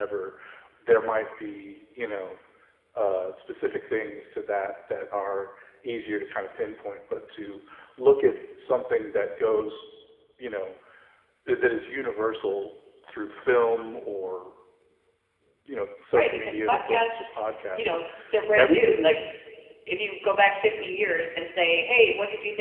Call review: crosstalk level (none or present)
present